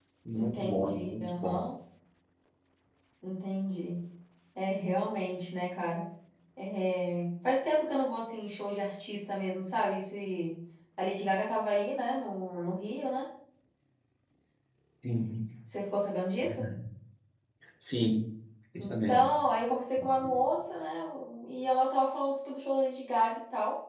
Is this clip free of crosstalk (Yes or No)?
No